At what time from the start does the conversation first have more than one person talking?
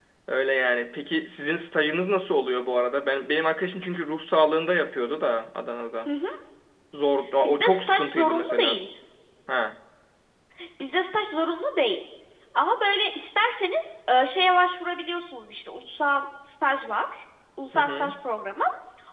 7.4 s

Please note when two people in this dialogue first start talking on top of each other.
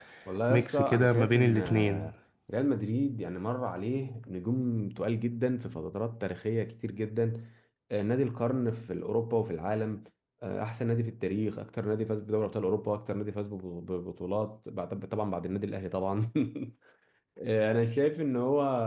0.5 s

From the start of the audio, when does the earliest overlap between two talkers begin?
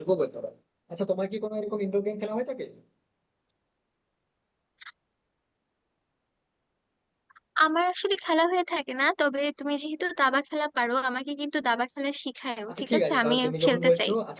12.7 s

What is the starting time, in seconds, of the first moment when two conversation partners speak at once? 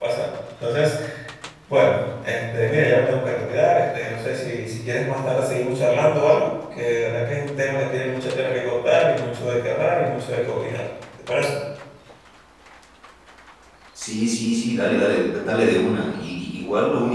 none

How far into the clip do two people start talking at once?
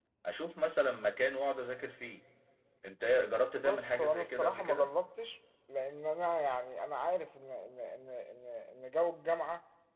3.6 s

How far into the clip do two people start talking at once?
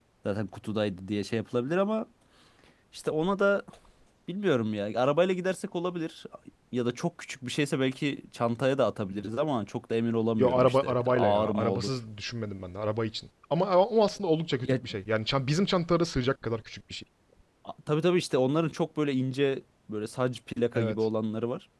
10.4 s

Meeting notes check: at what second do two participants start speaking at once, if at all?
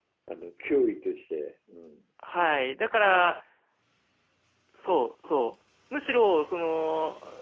none

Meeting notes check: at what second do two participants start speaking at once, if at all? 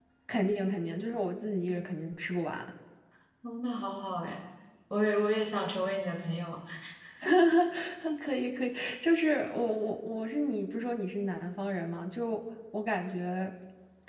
none

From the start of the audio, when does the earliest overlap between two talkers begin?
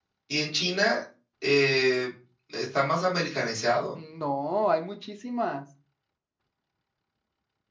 none

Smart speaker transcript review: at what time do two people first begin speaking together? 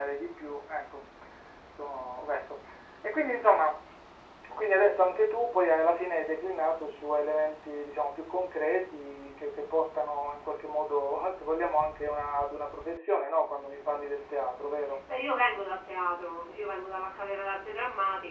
none

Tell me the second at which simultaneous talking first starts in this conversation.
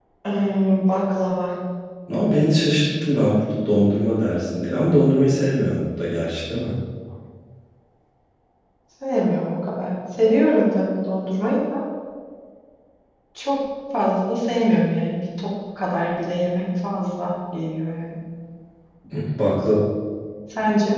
none

